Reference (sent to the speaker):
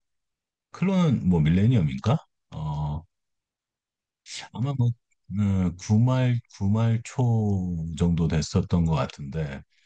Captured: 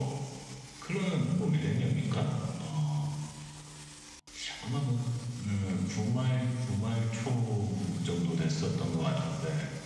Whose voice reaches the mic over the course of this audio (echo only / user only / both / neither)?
echo only